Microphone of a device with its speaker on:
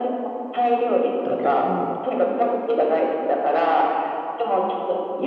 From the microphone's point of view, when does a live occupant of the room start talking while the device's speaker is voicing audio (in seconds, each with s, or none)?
1.2 s